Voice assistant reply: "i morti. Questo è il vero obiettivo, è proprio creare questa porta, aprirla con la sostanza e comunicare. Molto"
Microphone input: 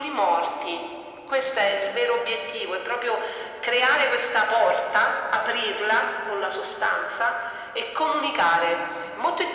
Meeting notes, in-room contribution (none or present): none